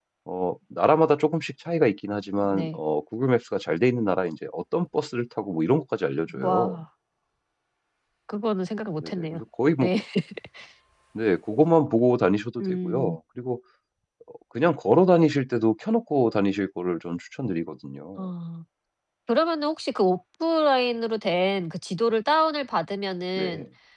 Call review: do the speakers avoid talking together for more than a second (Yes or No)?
Yes